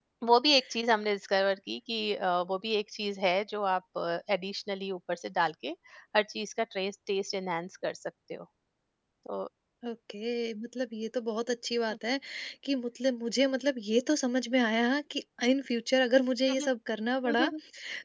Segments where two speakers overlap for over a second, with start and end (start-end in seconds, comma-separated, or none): none